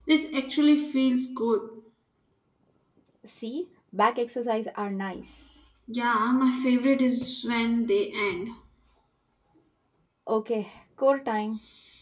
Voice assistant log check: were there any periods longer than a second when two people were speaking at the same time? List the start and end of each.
none

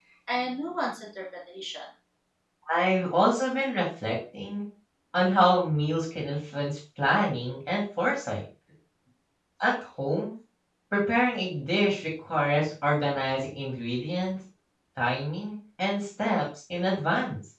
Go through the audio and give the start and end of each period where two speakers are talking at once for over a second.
none

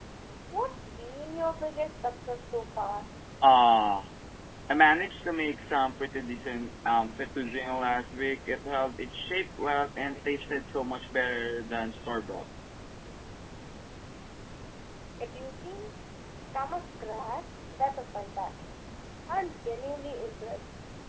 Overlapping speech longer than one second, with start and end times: none

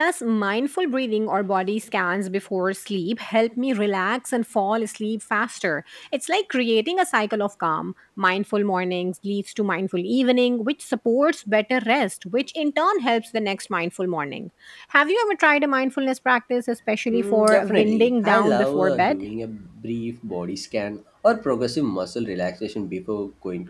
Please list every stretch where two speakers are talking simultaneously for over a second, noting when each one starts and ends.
17.1-19.2

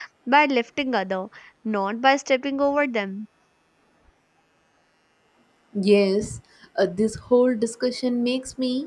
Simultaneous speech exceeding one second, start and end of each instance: none

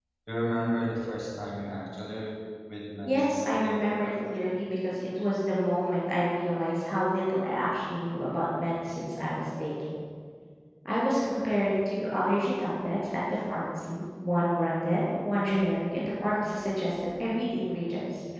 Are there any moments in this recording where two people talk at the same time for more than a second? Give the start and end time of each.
3.1-4.4

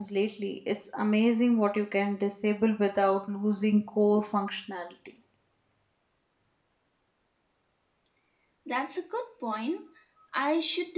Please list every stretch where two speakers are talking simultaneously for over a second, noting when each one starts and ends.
none

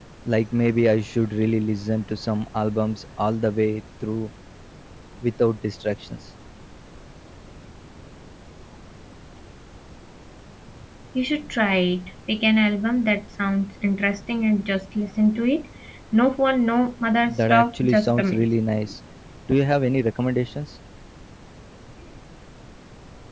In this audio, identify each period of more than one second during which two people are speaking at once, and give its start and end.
17.2-18.5

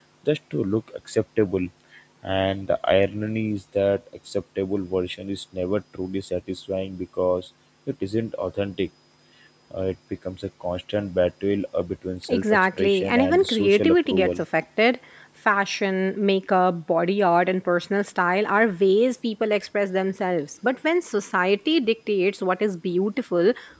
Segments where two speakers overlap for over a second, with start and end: 12.3-14.3

